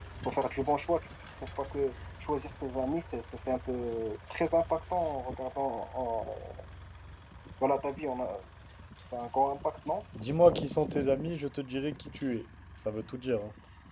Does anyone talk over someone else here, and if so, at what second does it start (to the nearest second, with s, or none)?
none